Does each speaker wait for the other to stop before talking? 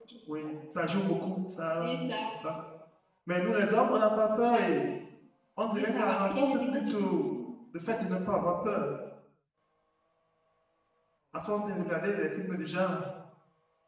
No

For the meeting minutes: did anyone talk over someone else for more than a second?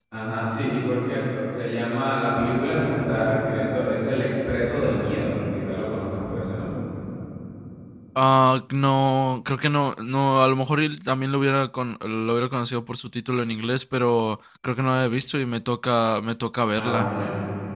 No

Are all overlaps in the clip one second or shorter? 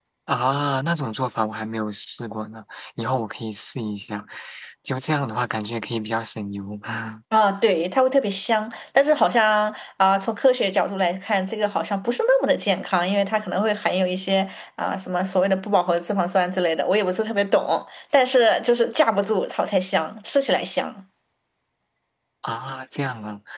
Yes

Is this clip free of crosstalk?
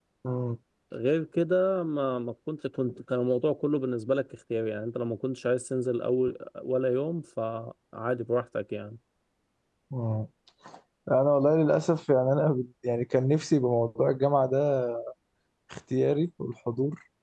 Yes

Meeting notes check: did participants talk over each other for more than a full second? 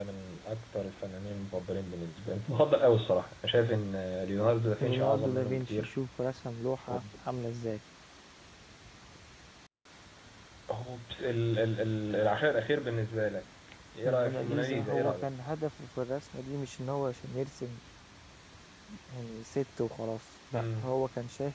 Yes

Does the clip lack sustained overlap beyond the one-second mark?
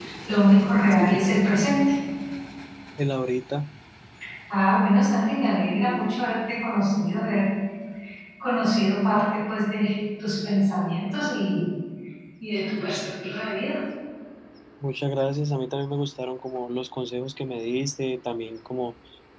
Yes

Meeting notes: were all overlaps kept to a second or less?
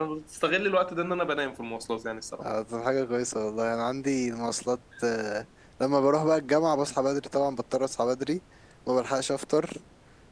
Yes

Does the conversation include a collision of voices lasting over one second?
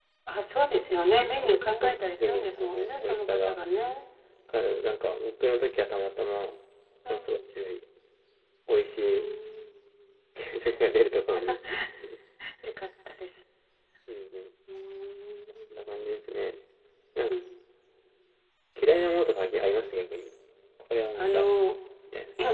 Yes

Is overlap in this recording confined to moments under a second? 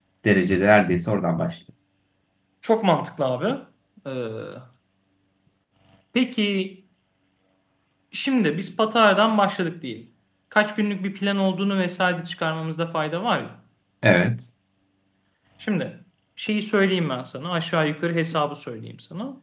Yes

